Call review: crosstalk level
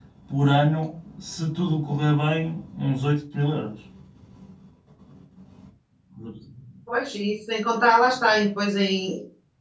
none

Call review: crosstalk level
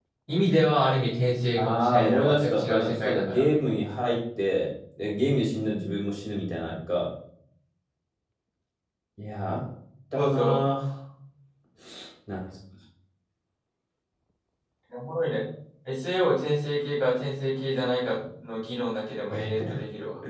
present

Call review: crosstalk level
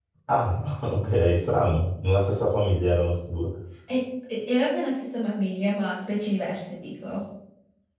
none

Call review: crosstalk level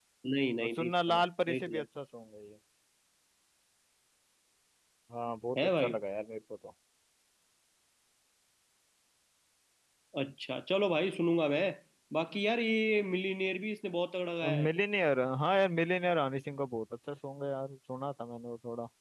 present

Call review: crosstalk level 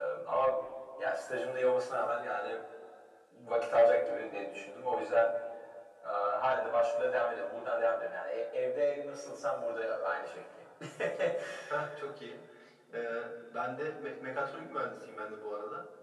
none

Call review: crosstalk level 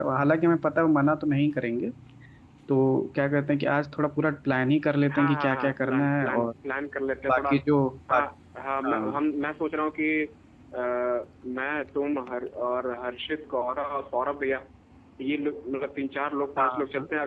present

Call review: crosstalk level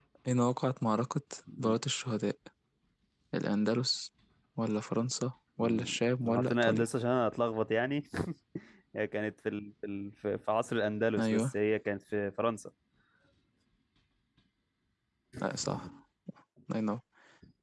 present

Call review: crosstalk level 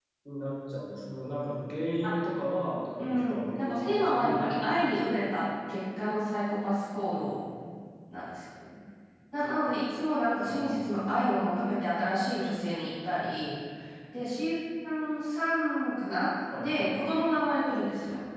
present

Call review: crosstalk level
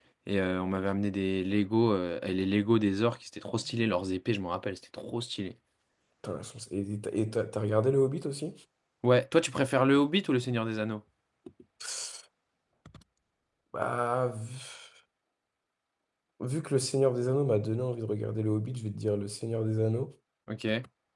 none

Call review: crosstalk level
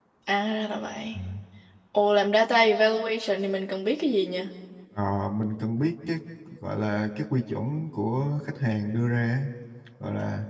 none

